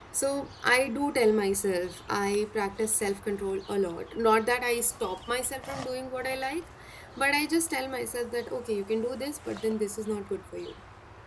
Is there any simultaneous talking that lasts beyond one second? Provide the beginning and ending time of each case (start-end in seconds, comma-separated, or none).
none